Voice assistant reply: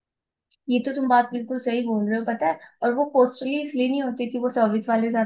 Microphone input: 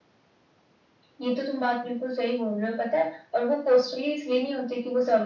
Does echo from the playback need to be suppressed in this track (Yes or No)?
Yes